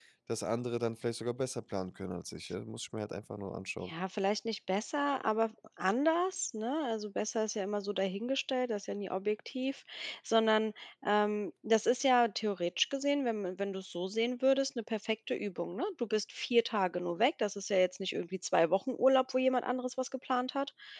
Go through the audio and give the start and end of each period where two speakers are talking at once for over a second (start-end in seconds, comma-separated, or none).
none